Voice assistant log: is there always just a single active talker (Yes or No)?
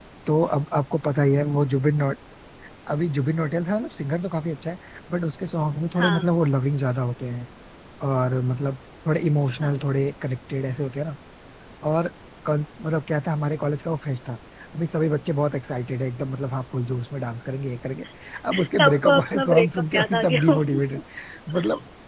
No